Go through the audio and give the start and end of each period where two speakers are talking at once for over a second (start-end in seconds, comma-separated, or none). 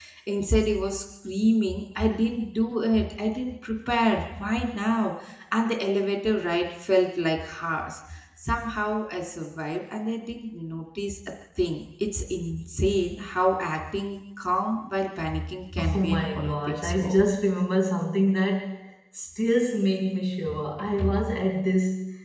15.8-17.2